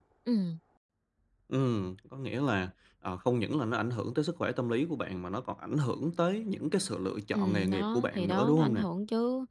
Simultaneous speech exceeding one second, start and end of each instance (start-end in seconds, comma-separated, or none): 7.3-8.8